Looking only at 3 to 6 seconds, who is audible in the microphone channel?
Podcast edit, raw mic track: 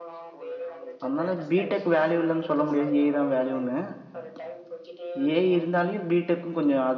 both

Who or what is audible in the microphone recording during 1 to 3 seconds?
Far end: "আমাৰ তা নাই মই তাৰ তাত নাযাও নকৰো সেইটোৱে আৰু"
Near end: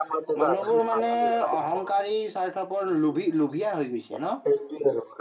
both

